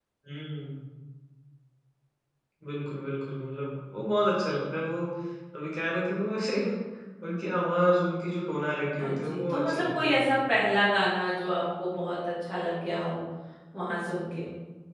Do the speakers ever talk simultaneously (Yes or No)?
Yes